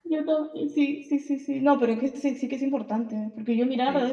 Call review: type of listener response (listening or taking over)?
listening